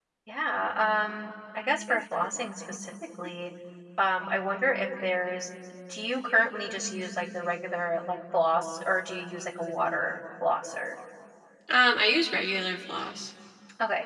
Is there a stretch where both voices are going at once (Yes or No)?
No